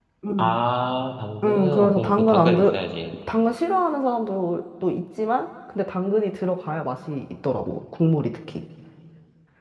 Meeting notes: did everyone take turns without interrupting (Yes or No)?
No